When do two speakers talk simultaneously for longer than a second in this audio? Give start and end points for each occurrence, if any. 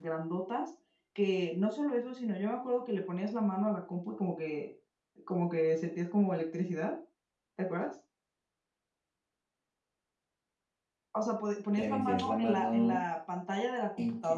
11.8-13.0

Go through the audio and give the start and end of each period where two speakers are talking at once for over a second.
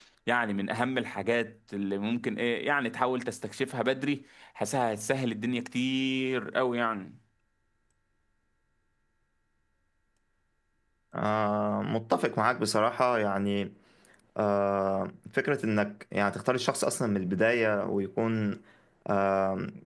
none

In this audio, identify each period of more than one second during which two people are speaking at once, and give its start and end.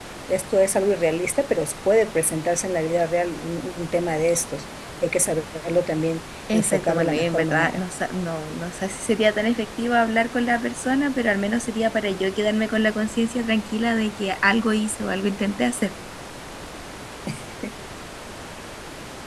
6.5-7.8

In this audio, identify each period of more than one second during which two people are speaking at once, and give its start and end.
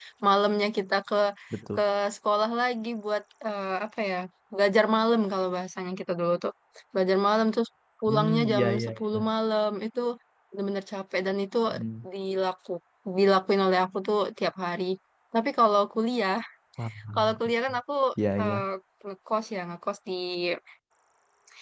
8.1-9.3

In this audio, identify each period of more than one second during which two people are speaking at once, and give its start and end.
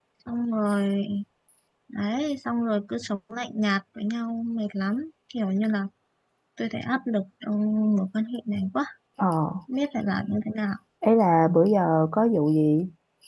none

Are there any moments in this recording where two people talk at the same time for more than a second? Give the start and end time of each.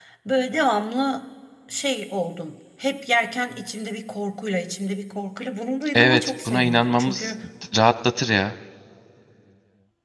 5.9-7.3

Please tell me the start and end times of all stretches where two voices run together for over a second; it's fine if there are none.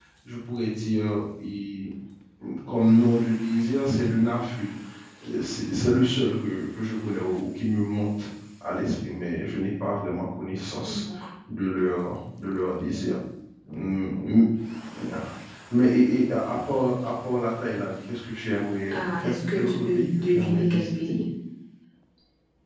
18.9-21.1

